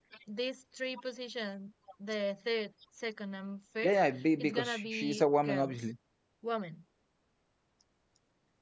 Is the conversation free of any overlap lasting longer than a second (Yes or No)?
No